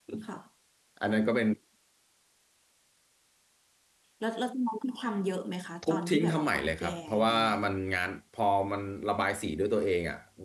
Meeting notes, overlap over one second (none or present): present